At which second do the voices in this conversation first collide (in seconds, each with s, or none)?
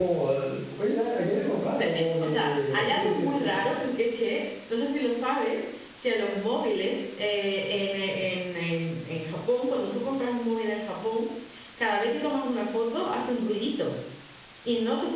1.7 s